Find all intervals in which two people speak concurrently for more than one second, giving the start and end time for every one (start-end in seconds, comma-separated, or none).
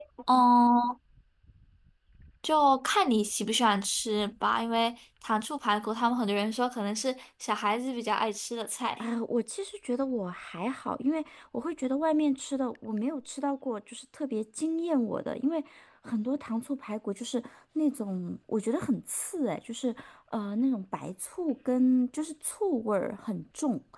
none